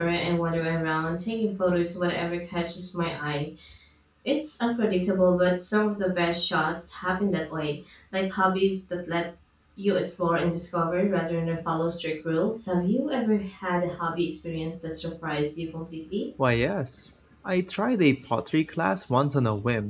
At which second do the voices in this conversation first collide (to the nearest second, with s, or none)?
none